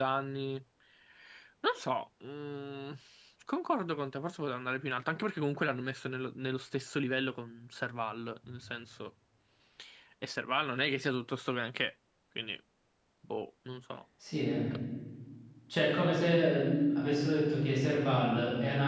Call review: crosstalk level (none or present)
none